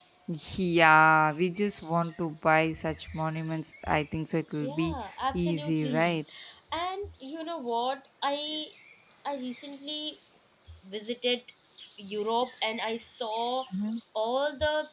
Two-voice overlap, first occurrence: 5 s

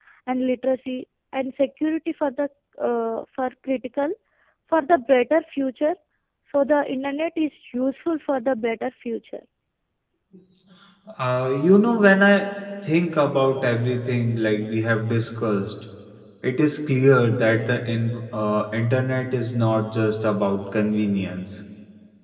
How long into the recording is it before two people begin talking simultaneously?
none

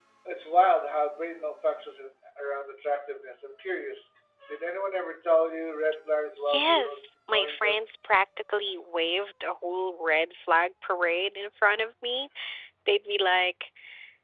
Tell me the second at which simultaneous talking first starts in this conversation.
6 s

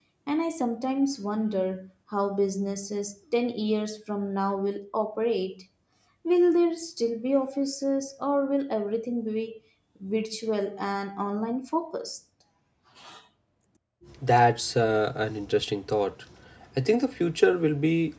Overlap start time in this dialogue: none

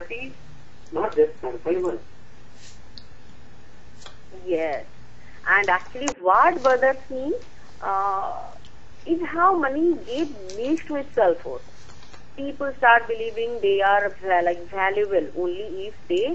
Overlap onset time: none

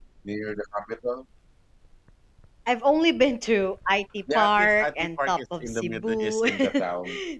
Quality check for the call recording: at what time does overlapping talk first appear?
4 s

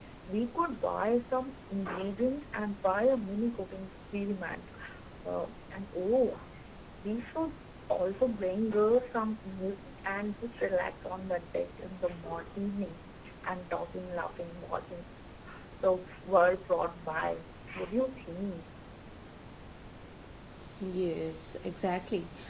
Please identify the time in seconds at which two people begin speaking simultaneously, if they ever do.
none

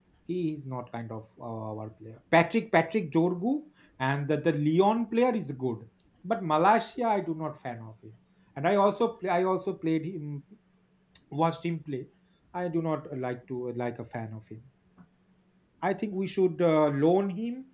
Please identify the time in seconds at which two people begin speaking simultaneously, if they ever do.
none

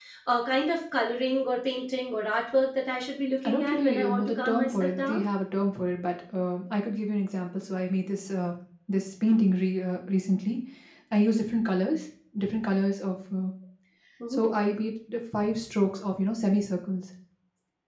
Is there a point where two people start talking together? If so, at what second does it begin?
3 s

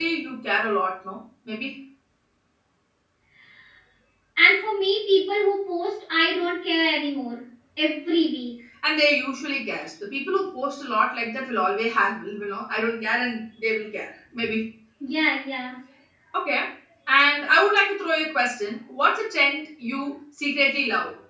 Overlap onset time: none

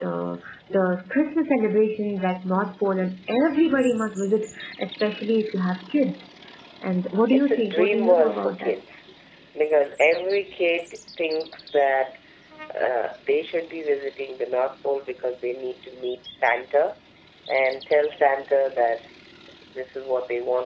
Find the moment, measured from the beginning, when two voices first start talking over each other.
7 s

